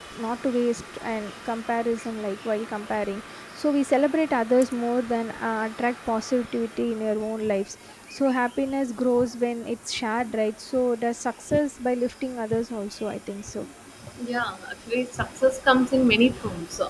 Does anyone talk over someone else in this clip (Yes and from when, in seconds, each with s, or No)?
No